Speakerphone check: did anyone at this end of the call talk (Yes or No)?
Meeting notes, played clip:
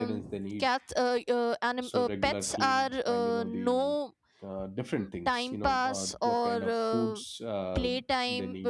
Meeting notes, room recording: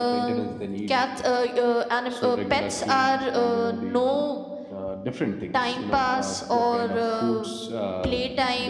No